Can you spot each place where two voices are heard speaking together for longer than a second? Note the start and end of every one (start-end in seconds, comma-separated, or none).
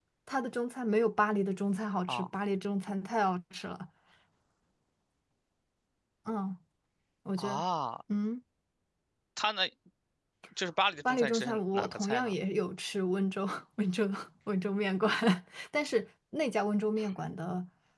11.1-12.4